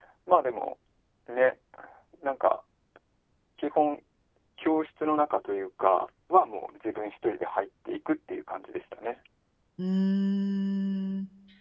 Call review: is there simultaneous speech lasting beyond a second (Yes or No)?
No